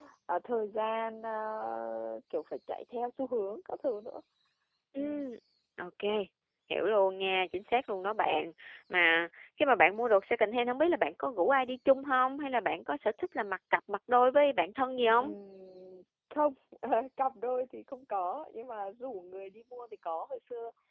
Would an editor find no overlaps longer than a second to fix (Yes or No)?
Yes